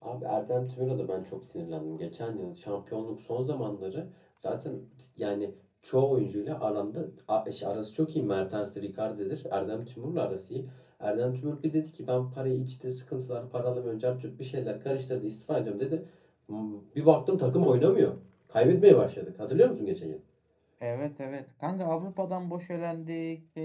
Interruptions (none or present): none